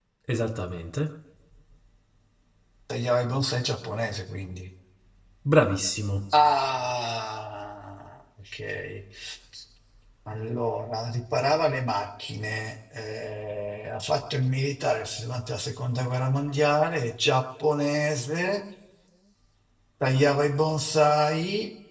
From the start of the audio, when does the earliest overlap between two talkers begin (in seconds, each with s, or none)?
none